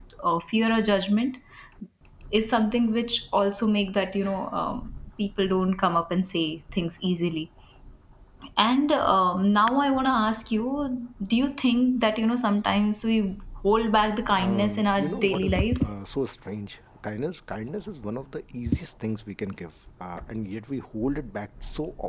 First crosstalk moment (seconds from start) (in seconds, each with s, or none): 14.4 s